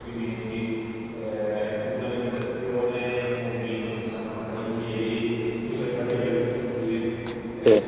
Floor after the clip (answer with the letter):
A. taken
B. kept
B